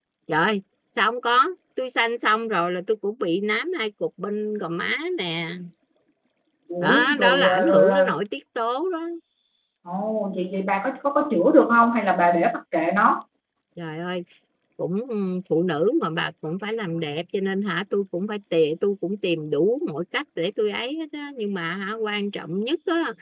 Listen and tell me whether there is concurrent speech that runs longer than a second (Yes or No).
Yes